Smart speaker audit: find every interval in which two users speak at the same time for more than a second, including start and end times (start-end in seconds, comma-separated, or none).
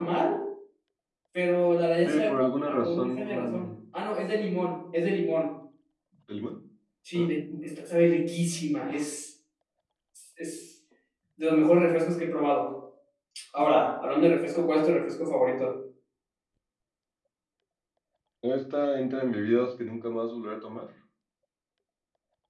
2.0-3.7